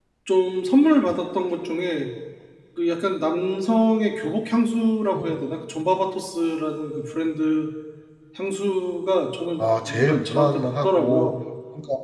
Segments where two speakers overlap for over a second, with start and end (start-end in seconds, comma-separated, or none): 9.6-11.3